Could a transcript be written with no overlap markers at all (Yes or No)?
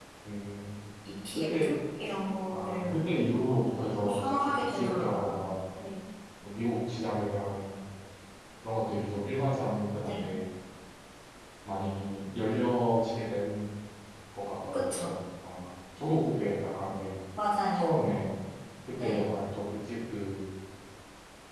No